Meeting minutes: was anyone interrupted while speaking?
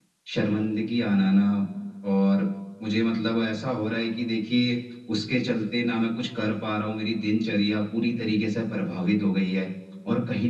No

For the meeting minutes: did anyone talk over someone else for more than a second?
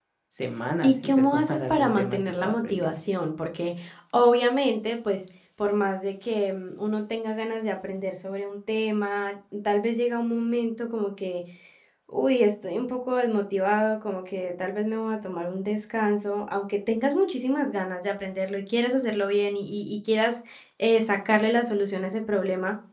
Yes, from 0.8 s

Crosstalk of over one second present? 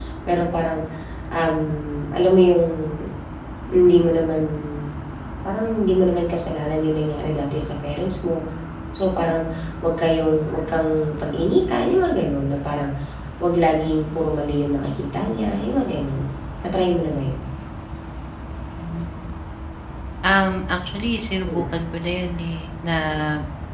No

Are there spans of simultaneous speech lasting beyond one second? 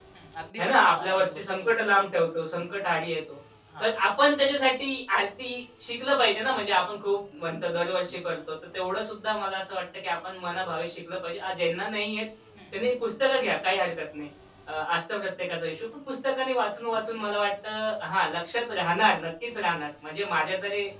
Yes, from 0.6 s

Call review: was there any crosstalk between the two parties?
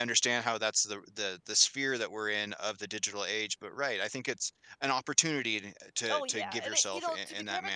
Yes, from 6.0 s

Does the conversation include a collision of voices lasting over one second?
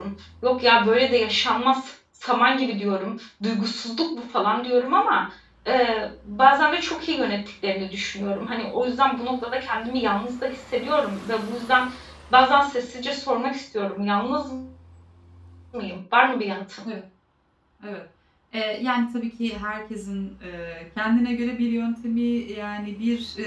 No

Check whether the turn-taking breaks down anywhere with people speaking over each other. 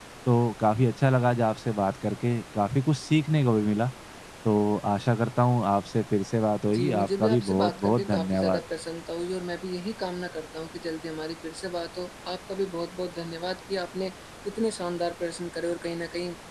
Yes, from 6.7 s

